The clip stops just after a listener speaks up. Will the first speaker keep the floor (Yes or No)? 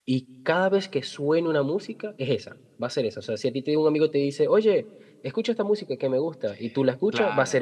No